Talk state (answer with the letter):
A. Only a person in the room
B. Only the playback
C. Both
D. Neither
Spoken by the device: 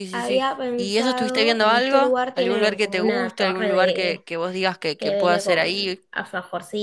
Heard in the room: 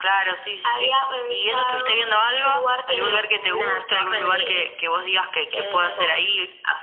B